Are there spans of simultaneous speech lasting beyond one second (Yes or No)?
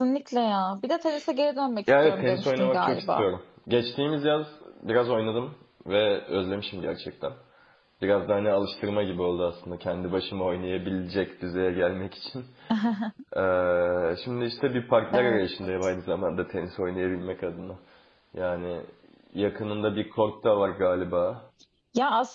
Yes